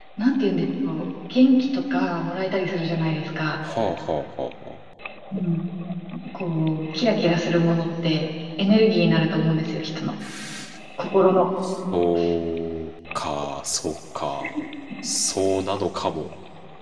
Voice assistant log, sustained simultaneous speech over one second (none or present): none